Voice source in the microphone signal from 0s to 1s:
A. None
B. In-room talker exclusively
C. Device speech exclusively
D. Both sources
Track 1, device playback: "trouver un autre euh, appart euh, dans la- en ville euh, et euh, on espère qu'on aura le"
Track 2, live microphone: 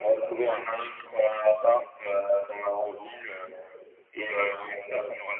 C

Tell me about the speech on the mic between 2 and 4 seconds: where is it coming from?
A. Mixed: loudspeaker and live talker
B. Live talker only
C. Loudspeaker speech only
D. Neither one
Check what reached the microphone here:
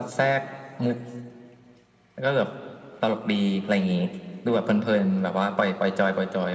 C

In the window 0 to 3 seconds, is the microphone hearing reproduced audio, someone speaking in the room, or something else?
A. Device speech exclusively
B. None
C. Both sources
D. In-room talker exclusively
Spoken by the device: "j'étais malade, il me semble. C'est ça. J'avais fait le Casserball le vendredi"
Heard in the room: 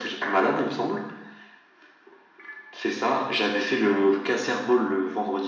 A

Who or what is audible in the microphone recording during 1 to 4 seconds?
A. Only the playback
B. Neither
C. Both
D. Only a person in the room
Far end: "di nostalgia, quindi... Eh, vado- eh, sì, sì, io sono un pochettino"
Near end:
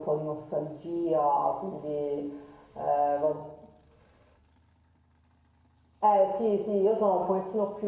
A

